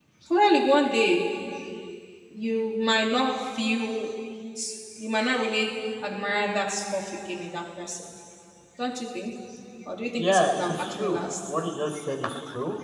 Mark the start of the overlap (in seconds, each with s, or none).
10.2 s